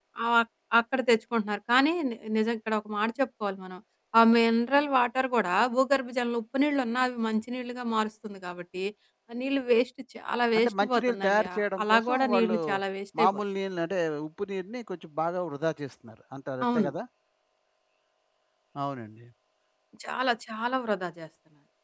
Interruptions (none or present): present